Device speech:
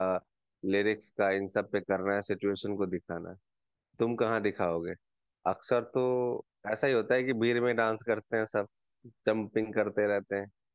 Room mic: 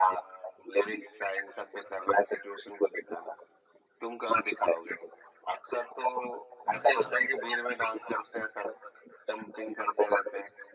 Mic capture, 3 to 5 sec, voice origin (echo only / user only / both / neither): echo only